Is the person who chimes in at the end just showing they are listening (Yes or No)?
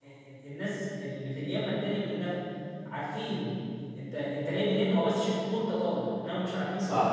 No